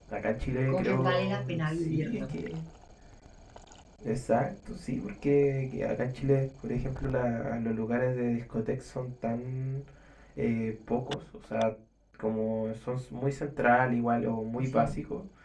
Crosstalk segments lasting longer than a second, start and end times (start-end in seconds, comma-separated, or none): 0.7-2.3